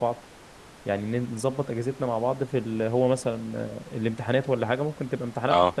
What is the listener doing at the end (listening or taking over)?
listening